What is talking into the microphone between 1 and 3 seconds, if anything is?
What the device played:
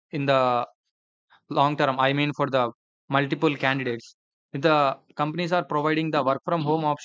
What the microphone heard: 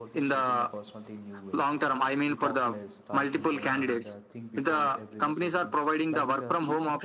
both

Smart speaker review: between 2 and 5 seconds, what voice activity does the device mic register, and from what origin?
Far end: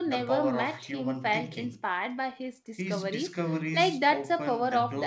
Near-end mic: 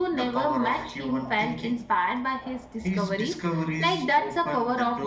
echo only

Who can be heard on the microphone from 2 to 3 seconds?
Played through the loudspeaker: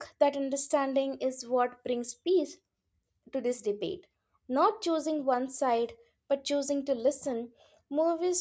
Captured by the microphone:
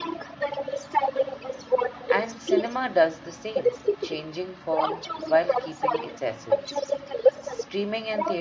both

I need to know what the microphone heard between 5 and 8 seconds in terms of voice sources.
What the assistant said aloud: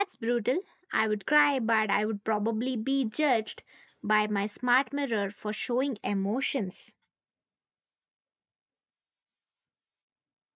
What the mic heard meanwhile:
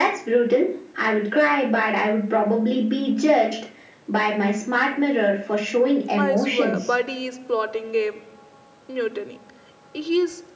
both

